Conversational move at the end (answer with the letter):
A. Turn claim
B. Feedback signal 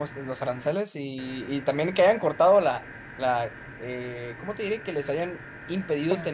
B